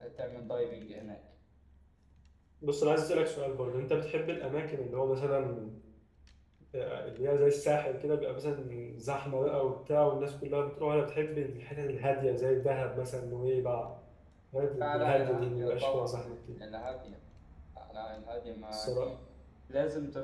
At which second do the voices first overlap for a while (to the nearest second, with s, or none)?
15 s